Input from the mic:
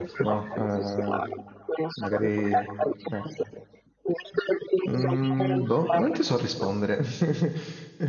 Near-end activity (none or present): present